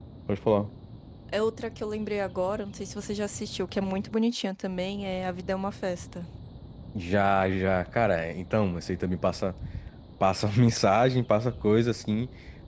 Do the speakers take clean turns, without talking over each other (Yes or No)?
Yes